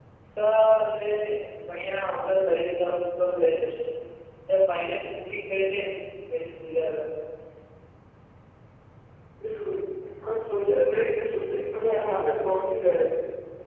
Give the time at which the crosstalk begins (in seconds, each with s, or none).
none